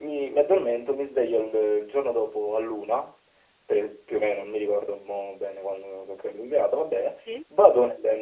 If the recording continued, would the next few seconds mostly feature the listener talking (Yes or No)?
No